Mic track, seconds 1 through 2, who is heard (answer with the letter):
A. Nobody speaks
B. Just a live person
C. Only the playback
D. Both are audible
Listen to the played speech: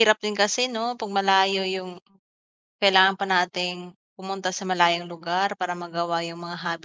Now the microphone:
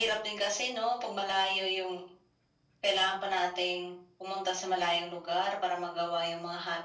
C